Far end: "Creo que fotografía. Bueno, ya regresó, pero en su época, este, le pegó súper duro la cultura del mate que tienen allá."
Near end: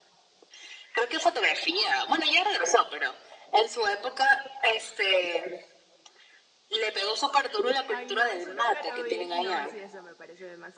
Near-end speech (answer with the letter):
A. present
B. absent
A